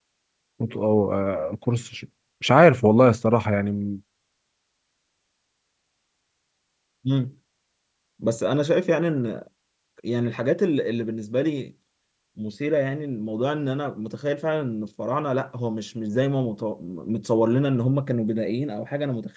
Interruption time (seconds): none

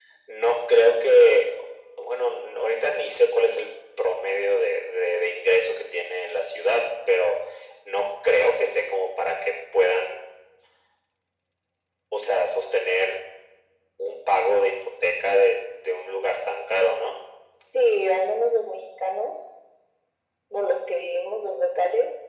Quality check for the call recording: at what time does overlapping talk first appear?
none

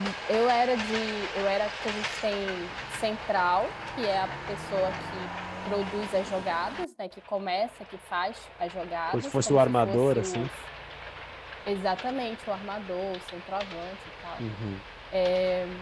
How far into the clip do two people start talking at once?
9.1 s

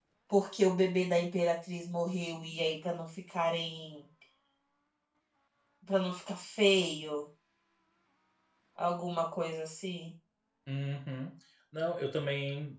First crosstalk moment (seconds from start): none

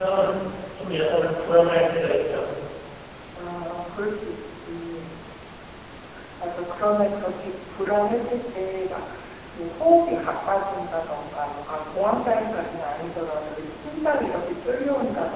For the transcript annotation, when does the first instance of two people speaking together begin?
none

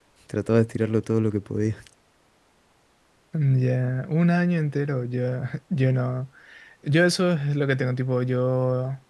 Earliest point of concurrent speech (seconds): none

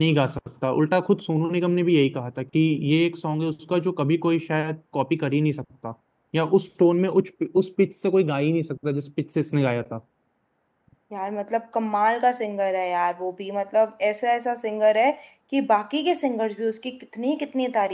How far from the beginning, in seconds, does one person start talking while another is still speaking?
none

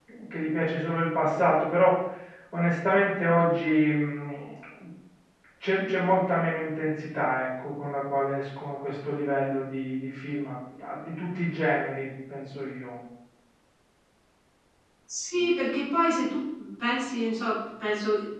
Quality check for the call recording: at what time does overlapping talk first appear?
none

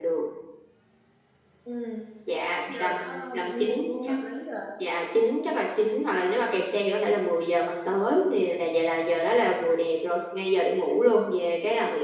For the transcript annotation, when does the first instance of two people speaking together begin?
2.7 s

